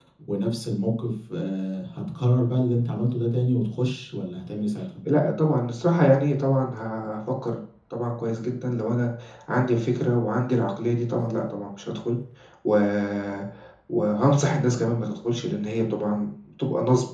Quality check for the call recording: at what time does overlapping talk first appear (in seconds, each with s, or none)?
none